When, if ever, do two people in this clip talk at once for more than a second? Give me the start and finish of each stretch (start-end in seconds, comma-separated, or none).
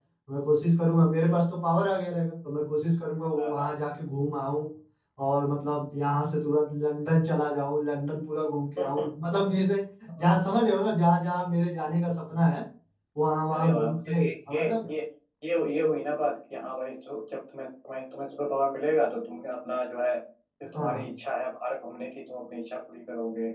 13.5-14.9